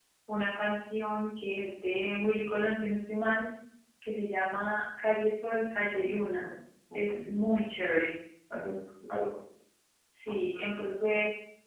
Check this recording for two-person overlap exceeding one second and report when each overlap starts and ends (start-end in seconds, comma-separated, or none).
none